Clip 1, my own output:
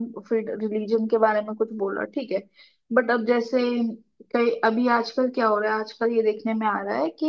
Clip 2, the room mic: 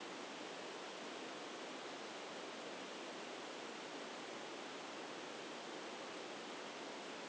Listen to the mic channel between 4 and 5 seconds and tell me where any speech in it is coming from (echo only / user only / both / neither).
neither